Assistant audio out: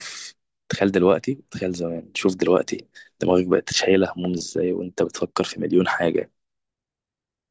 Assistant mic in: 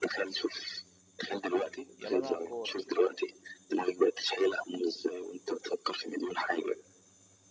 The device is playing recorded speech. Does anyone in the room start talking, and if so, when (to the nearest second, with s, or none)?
2 s